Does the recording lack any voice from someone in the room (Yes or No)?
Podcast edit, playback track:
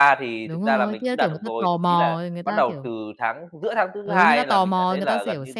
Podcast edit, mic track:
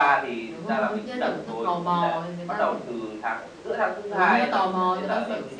Yes